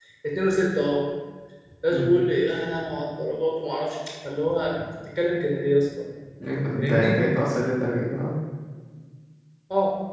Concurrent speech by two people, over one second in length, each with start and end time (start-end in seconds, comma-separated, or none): none